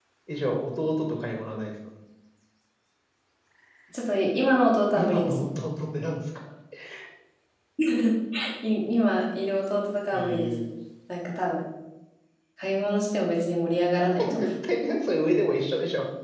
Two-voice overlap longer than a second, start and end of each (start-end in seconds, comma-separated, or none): none